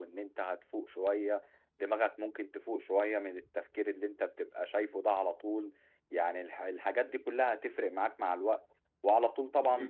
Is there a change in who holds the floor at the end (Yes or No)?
No